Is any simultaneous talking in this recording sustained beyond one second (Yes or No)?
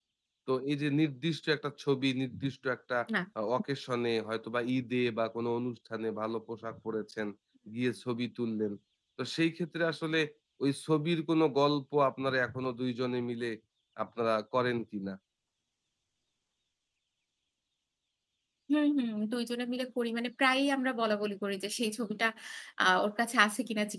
No